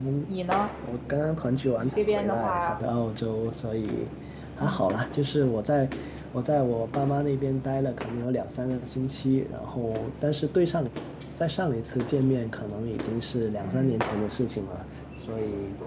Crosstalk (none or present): present